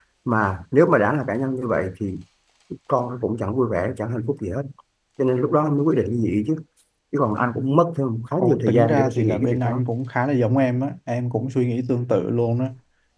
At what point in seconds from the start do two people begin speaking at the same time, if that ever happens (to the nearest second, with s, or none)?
8 s